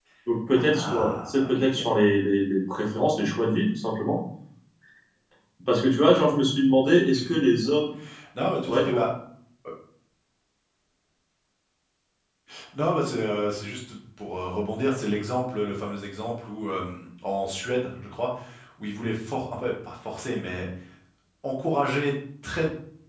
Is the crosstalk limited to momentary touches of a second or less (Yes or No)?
No